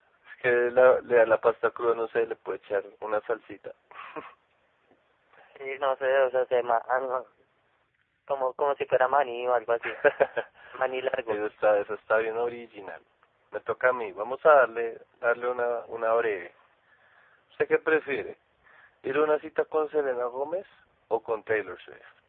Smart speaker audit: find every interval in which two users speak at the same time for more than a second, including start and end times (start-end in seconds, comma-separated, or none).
none